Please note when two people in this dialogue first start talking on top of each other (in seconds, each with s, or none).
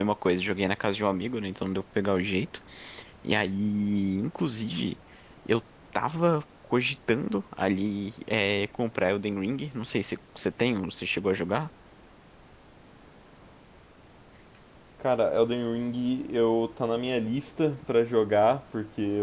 none